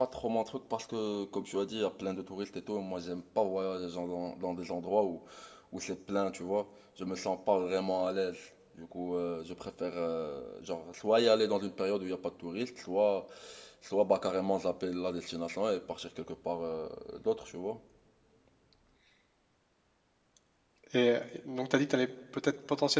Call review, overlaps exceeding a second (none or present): none